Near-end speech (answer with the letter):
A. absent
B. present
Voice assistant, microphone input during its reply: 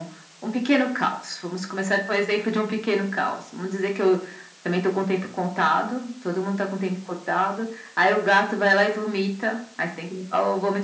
A